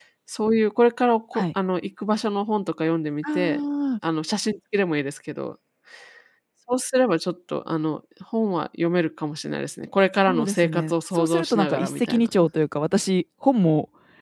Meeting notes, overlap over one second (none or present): present